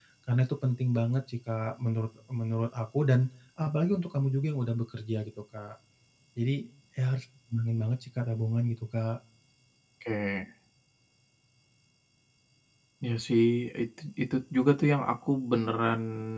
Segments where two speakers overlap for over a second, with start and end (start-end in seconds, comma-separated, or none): none